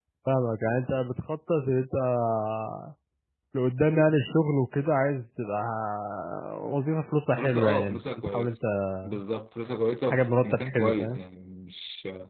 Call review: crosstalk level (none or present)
present